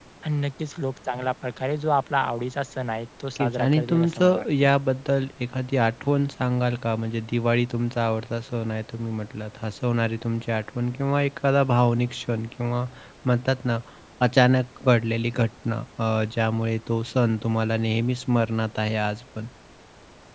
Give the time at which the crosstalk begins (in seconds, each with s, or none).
3.4 s